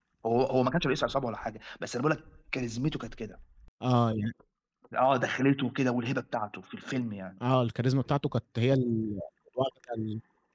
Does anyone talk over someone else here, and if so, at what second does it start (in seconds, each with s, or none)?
none